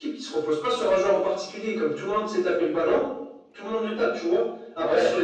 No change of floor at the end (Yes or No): Yes